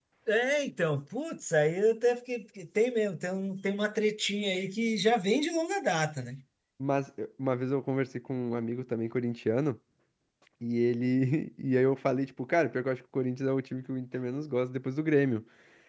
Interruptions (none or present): none